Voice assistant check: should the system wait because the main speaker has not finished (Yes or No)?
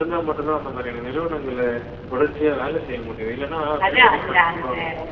No